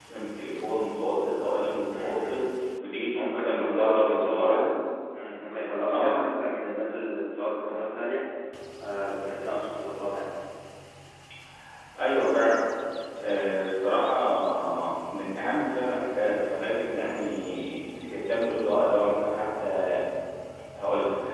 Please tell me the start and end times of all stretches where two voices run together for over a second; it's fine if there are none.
3.1-4.7

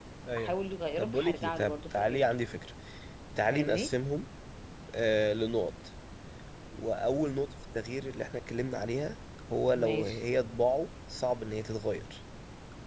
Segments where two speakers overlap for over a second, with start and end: 1.0-2.2

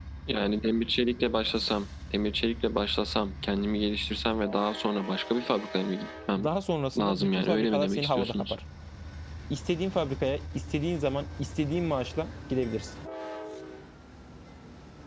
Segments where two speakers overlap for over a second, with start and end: 7.0-8.5

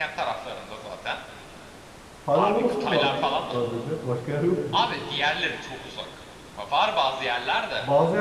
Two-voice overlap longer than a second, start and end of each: 2.3-3.5

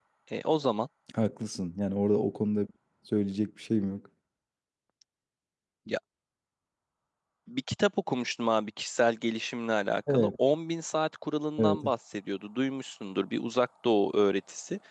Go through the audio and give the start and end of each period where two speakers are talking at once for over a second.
none

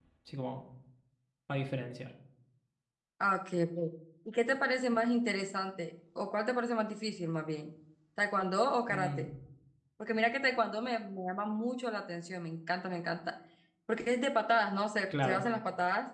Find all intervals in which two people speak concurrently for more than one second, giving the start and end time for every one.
none

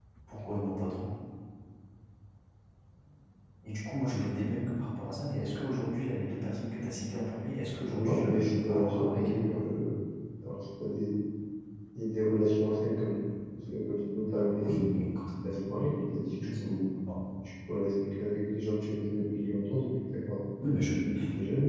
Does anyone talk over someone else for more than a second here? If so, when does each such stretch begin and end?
7.9-9.6

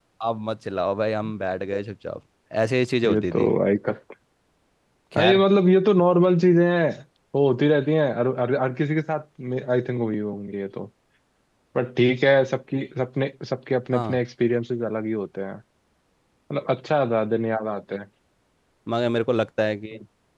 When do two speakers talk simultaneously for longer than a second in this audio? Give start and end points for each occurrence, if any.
none

